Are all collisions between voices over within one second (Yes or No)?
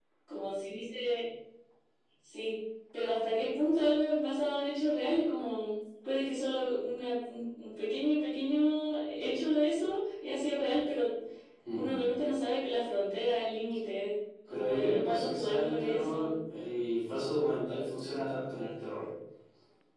No